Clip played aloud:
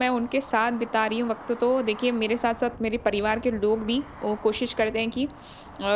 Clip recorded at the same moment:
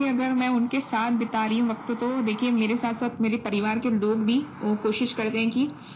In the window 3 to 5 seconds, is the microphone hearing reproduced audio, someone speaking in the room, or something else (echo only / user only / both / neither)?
echo only